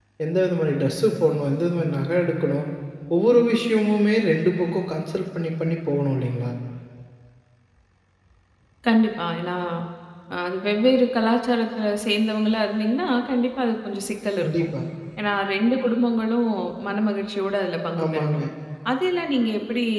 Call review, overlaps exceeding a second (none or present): none